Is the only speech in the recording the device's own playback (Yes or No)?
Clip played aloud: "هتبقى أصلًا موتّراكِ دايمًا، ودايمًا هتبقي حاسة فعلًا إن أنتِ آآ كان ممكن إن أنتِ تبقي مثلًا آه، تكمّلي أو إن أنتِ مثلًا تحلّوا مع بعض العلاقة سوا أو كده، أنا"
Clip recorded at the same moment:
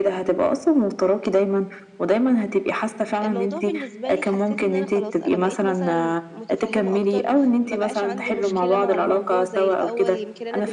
No